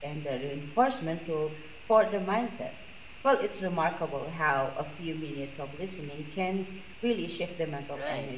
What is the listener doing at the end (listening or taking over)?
taking over